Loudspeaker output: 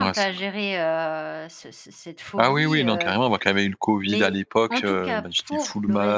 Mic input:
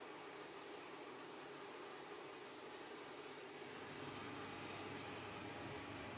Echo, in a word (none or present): none